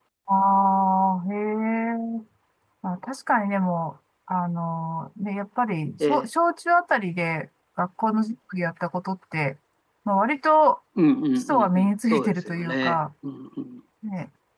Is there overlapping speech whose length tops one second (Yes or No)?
Yes